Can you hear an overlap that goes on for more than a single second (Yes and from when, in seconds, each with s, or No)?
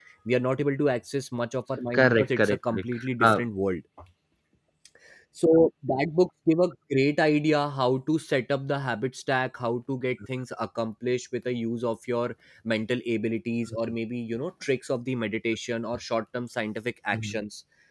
Yes, from 1.9 s